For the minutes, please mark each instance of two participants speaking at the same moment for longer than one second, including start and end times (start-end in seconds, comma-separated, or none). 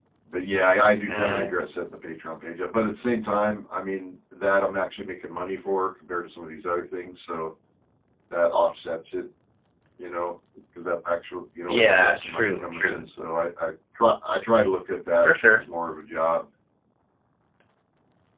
11.7-13.0